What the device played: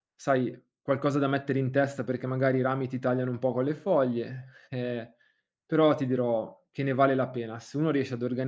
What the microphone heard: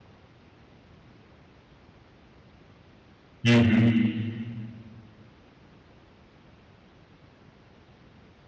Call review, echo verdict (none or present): none